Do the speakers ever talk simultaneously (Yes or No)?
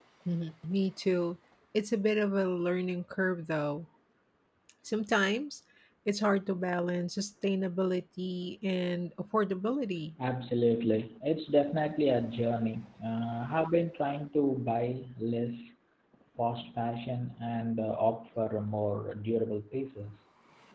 No